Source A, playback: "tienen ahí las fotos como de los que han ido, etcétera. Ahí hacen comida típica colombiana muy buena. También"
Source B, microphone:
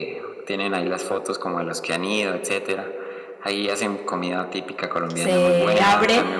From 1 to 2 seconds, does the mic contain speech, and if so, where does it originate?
echo only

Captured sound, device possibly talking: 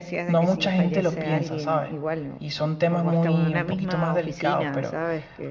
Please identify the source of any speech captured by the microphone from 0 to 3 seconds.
both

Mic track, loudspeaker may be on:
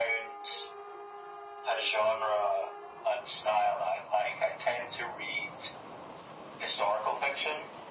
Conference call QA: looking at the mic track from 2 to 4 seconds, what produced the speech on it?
echo only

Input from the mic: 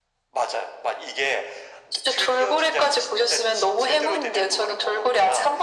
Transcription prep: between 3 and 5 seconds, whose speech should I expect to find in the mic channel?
echo only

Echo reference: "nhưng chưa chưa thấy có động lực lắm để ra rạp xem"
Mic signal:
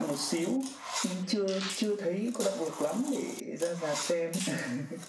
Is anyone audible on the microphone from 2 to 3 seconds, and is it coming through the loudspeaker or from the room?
echo only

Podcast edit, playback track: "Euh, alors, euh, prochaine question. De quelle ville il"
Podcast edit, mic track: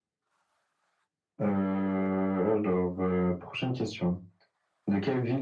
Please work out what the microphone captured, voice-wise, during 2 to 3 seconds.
echo only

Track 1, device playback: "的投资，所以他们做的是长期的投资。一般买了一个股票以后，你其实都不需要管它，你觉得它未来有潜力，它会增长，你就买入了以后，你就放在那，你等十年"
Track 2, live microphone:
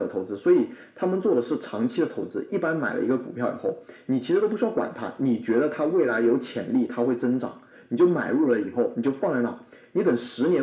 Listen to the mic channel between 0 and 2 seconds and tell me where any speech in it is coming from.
echo only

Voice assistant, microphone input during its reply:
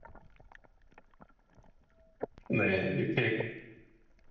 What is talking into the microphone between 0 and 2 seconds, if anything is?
neither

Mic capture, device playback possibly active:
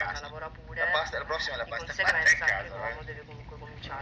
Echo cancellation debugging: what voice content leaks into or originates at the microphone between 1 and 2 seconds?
echo only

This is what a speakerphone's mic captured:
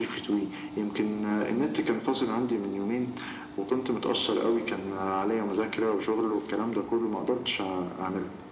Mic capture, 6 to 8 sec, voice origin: echo only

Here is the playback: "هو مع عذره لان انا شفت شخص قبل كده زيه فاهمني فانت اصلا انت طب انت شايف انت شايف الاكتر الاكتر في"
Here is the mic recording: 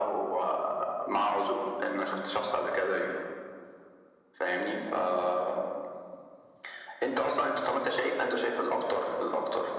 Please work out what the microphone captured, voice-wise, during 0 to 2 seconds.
echo only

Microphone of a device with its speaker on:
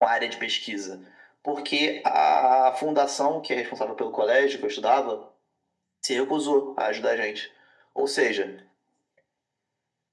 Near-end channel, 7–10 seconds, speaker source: echo only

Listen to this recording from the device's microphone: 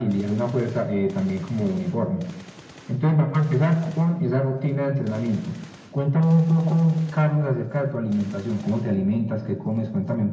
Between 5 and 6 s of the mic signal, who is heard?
echo only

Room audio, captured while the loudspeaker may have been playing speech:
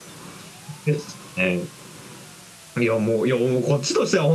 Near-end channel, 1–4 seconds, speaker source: echo only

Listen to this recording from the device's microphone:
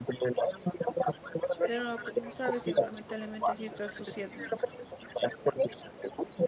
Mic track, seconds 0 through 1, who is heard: echo only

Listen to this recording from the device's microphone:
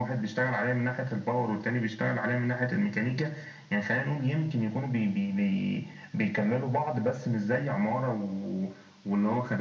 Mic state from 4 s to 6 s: echo only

